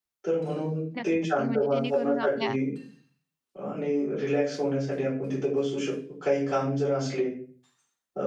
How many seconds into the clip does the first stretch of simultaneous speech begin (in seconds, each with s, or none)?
1.0 s